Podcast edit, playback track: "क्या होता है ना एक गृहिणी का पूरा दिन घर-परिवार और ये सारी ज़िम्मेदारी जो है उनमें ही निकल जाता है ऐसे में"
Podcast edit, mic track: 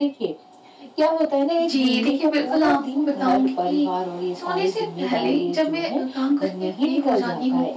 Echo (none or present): present